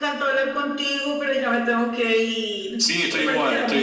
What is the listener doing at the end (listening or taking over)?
taking over